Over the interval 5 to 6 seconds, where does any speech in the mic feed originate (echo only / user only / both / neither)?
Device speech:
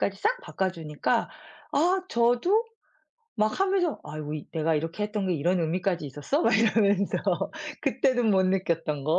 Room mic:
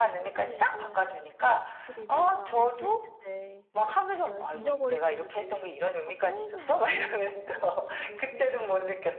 both